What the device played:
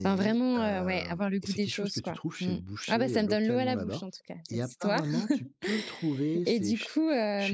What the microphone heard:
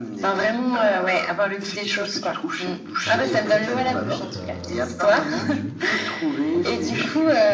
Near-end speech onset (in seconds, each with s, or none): 3.0 s